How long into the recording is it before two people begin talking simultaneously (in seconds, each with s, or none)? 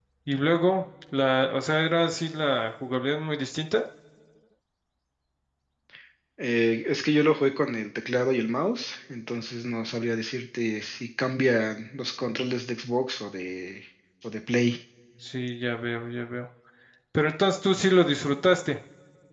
none